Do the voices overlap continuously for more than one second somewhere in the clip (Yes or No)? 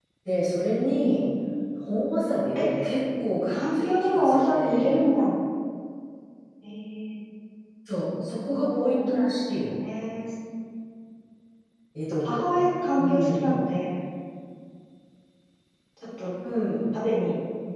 Yes